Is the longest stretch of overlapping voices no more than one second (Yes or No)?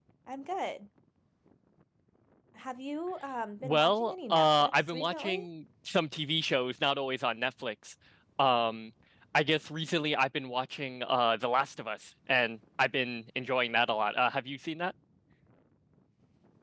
No